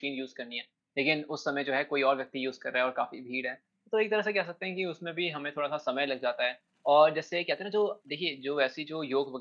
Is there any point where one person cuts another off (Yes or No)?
No